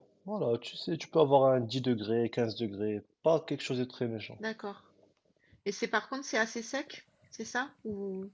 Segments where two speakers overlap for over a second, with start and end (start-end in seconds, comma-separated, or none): none